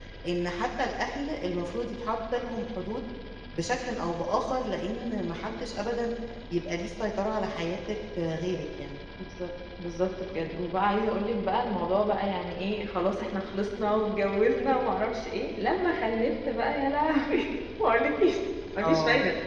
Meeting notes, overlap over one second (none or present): none